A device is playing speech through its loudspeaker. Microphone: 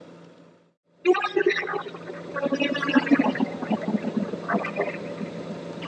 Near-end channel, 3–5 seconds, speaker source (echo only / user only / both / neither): echo only